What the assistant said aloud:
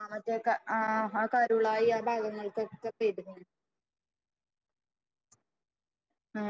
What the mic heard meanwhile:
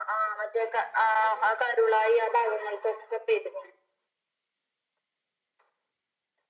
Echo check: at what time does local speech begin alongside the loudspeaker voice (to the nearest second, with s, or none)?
none